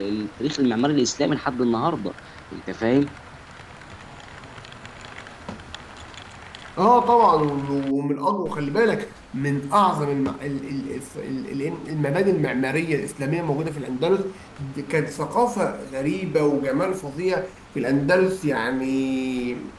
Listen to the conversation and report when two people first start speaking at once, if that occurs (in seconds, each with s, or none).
none